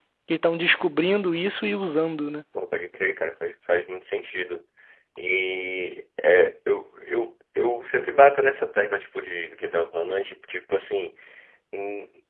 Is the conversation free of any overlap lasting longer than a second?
Yes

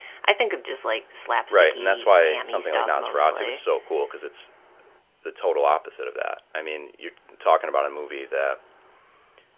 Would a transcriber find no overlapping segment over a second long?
No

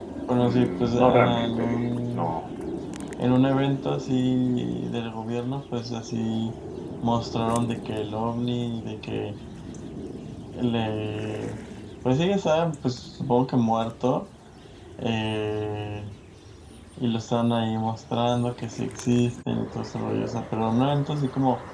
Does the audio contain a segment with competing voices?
Yes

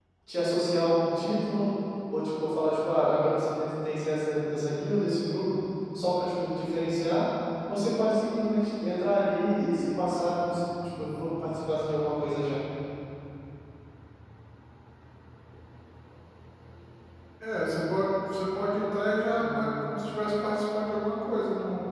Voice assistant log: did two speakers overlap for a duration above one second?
No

